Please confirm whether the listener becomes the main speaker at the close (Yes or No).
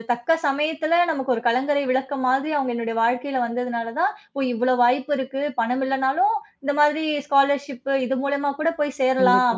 No